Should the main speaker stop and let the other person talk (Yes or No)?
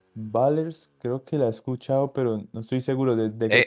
Yes